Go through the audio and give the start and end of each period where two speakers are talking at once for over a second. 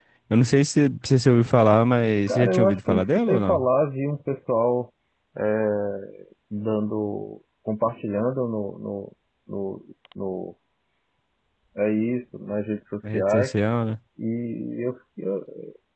2.3-3.7

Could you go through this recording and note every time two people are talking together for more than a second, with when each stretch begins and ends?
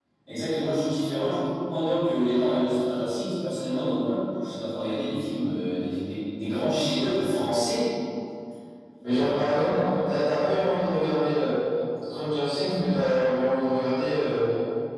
none

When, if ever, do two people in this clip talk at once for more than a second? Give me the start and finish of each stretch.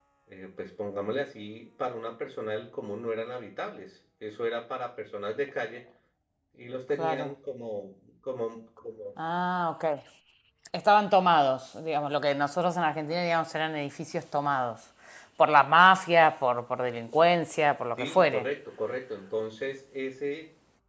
none

